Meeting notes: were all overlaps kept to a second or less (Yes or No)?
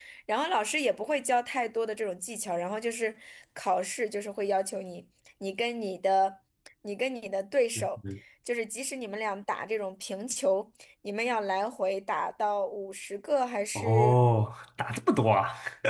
Yes